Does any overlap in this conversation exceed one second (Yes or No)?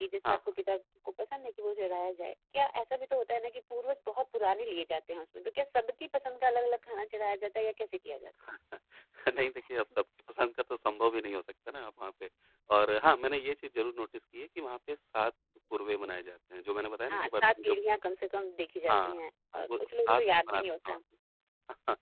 Yes